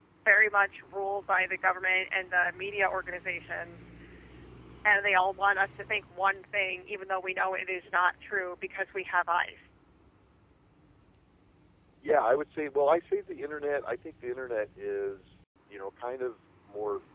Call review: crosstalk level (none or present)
none